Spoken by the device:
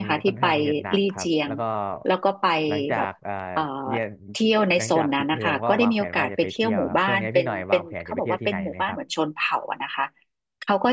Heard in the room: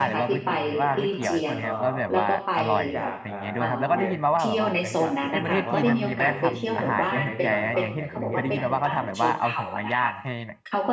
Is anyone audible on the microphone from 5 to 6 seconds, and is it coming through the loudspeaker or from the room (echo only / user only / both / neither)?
both